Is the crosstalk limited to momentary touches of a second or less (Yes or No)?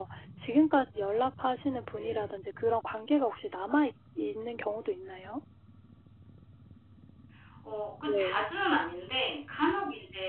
Yes